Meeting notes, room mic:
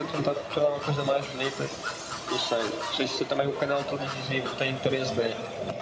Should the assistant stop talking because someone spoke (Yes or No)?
No